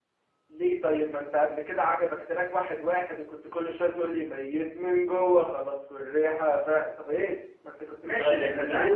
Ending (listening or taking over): taking over